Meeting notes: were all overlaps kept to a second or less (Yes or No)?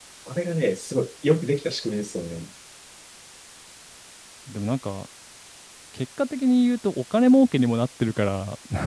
Yes